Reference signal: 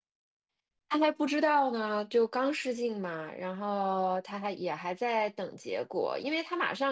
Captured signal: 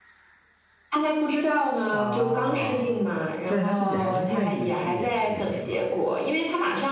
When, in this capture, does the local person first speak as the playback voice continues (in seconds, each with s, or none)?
1.9 s